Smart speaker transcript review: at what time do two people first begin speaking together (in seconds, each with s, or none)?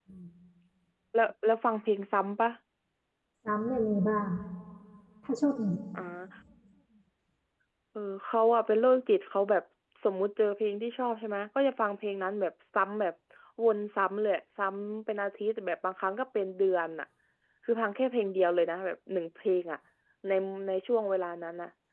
none